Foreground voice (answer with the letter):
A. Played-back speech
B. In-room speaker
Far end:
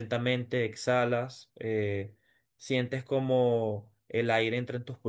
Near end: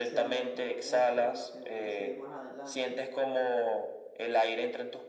A